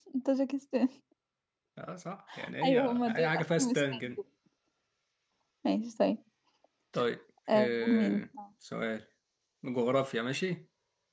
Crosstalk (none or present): present